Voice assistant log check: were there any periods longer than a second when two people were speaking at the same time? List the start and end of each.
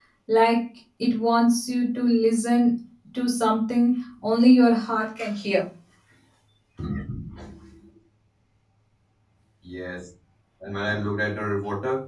none

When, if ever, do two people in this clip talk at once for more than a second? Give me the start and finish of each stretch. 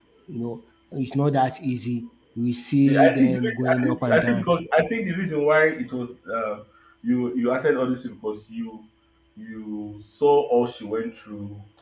2.8-4.5

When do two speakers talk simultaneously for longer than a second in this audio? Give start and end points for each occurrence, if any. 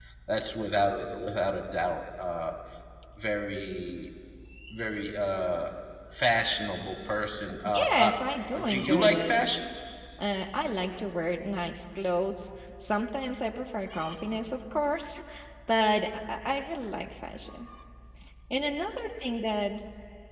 7.6-9.4

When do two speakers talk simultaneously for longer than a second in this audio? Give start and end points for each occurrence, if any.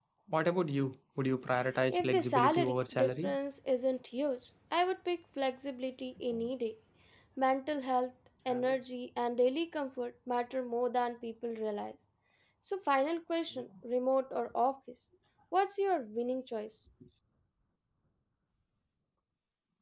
1.9-3.3

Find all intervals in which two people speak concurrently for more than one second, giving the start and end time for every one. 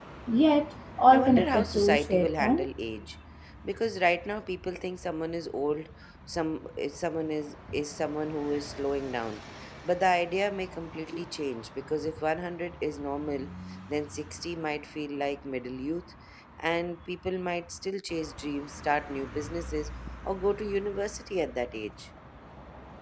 1.1-2.7

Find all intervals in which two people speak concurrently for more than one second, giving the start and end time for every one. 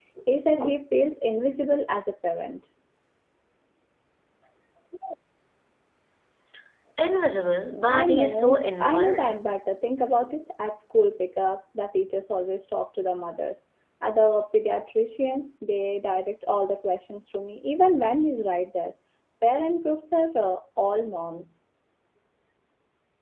7.9-9.3

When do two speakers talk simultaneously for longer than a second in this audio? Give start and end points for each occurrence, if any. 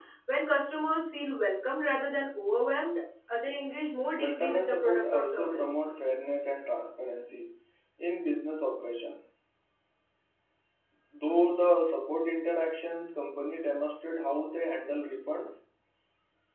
4.2-5.8

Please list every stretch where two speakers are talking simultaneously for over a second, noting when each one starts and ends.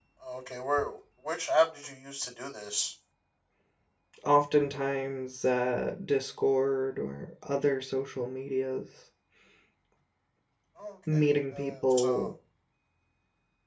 11.1-12.3

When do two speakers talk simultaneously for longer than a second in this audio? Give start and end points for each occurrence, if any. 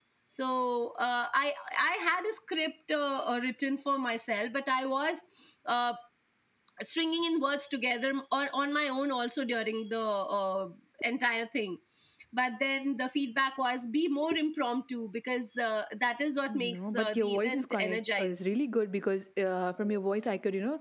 16.5-18.4

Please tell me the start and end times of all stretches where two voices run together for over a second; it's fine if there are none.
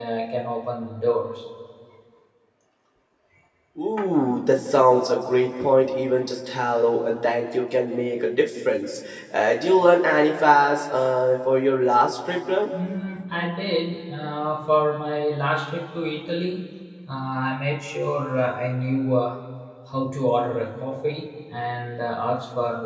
none

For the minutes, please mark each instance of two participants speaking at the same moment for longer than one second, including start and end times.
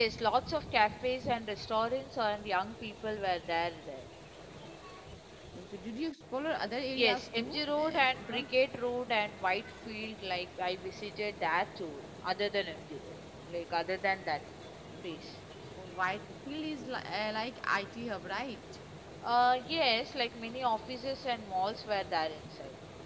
7.0-8.4

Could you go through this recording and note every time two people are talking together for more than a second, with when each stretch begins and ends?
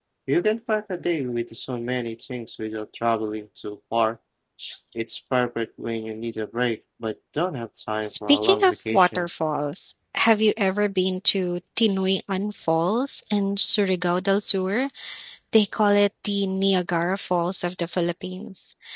8.0-9.3

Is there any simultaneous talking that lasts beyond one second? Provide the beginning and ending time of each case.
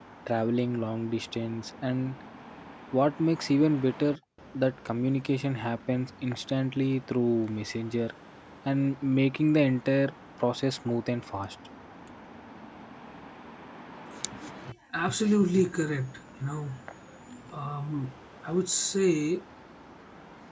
none

